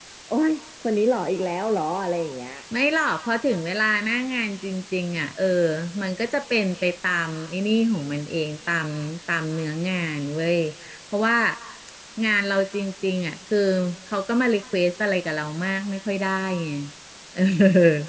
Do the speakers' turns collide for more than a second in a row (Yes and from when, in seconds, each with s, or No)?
No